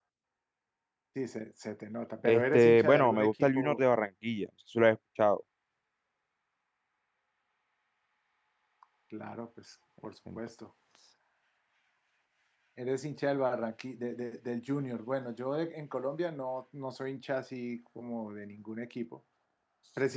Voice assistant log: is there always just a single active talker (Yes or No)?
No